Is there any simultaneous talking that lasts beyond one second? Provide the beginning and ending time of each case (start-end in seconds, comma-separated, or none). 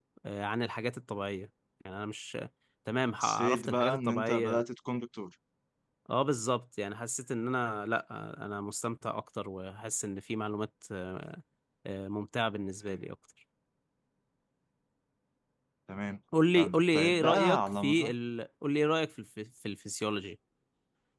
3.2-4.6, 16.6-18.1